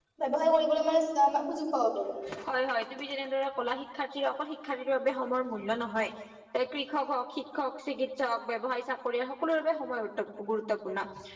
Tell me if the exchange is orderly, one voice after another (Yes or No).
Yes